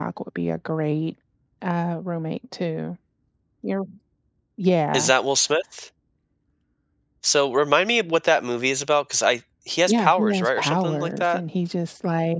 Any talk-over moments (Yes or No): Yes